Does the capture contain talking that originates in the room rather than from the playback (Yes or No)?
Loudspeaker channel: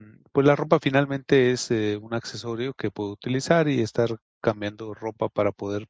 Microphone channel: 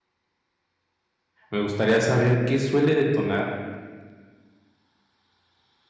Yes